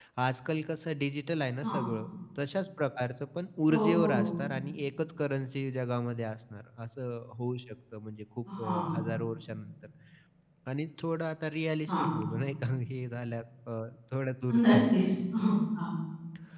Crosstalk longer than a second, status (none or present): none